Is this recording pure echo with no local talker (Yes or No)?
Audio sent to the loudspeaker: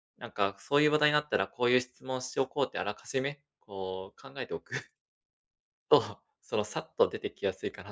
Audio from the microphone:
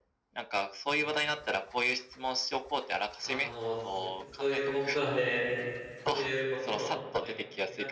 No